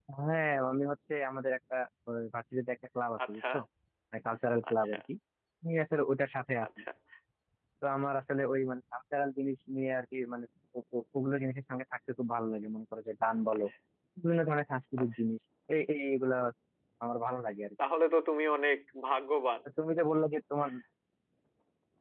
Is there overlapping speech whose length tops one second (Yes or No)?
No